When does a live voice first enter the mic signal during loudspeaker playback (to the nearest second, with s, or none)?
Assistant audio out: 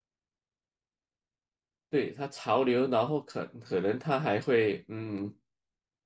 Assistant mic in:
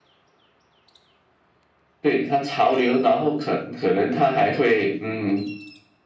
none